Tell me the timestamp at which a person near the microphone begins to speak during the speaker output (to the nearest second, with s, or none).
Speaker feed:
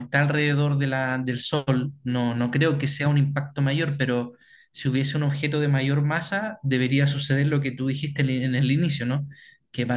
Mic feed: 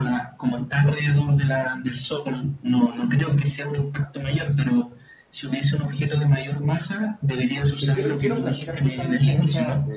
8 s